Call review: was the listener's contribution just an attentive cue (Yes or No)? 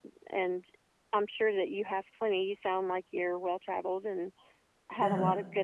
Yes